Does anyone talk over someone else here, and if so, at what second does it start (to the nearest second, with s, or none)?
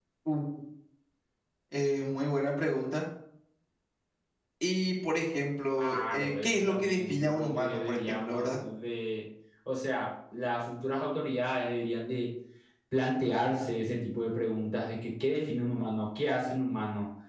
6 s